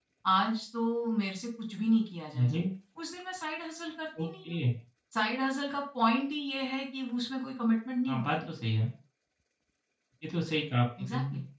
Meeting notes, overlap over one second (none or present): none